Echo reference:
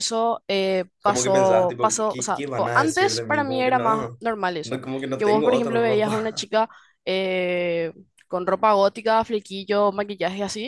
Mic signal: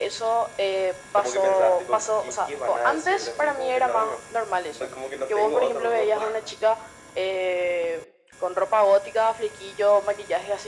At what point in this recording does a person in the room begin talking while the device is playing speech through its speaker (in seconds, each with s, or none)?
none